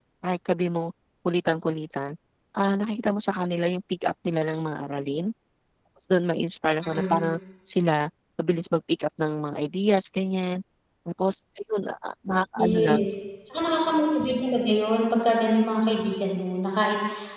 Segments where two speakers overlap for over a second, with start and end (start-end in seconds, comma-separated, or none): none